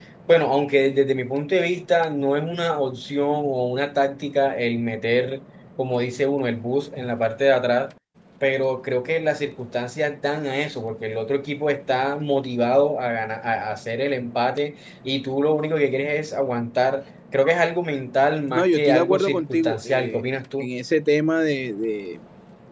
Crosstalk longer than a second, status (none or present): present